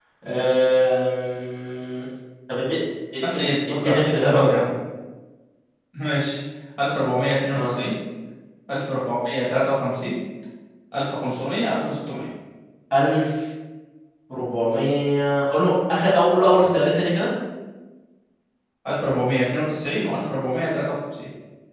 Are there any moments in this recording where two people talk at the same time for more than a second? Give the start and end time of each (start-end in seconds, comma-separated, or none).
3.3-4.7